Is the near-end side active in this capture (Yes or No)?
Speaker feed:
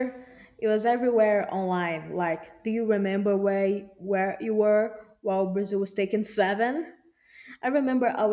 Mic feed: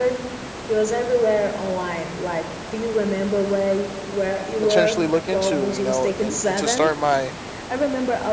Yes